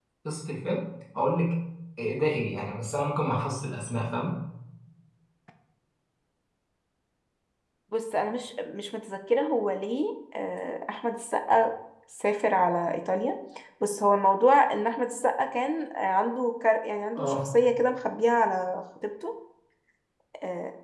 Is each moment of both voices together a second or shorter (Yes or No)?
Yes